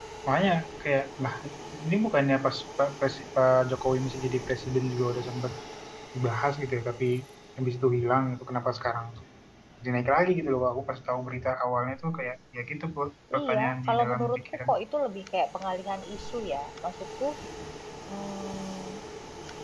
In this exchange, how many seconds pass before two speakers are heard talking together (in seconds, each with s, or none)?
13.3 s